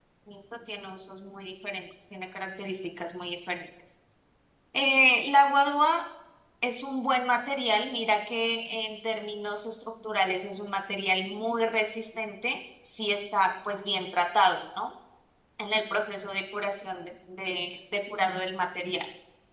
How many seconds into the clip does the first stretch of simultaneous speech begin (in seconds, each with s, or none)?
none